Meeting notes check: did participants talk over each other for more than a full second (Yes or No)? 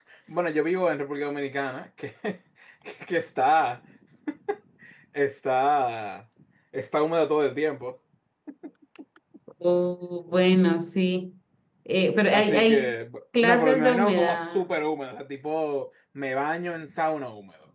Yes